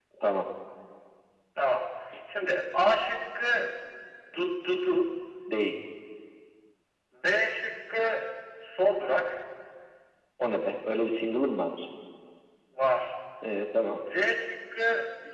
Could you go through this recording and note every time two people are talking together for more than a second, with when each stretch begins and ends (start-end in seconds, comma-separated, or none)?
none